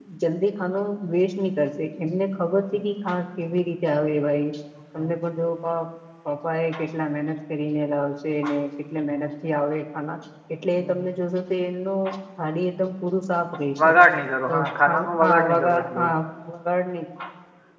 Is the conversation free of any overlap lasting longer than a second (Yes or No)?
No